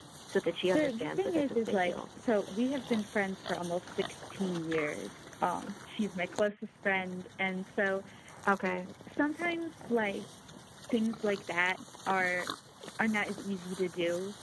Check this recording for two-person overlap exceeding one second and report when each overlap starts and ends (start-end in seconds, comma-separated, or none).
0.7-2.0